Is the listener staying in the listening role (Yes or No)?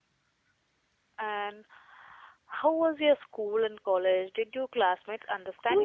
No